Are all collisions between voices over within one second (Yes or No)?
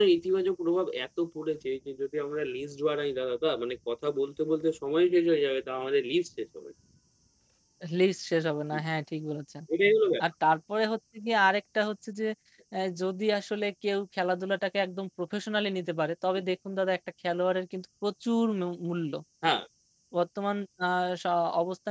Yes